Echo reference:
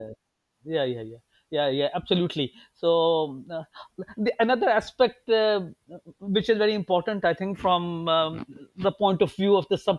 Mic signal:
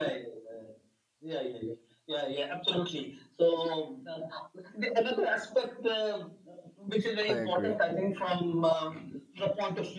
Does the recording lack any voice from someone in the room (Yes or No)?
No